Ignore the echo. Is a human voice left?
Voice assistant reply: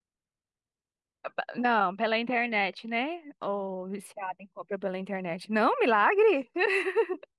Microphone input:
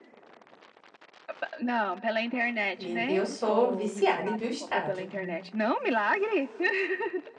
Yes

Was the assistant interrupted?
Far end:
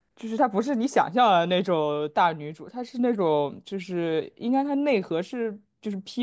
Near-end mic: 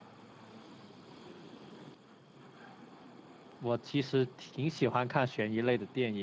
Yes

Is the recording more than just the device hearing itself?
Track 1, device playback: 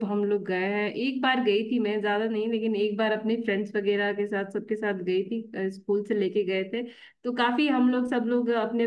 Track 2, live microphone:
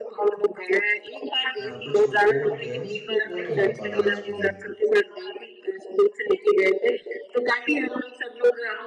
Yes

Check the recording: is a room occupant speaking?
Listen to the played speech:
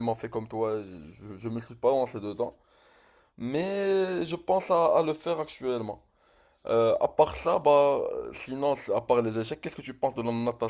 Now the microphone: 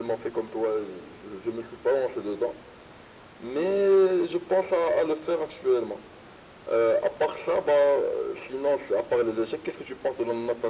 No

